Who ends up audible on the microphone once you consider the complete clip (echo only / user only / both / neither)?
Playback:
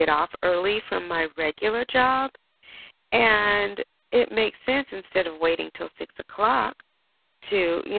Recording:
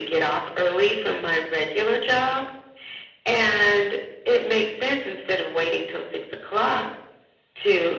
echo only